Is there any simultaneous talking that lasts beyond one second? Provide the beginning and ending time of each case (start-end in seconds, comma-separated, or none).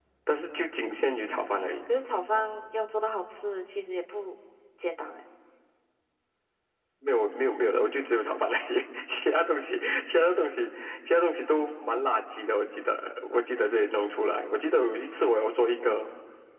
none